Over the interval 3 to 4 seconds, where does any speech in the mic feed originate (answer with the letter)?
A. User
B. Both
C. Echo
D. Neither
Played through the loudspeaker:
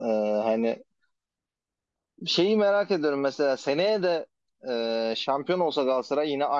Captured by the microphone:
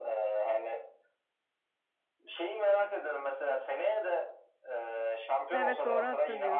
C